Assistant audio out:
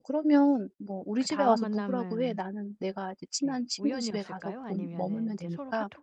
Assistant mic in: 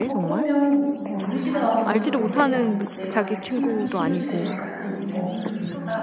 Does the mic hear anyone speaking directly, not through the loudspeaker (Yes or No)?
Yes